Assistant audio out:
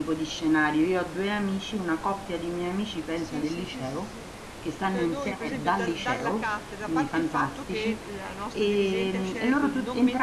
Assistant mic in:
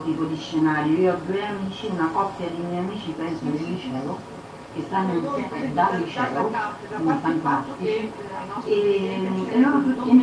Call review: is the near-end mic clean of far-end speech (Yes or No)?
No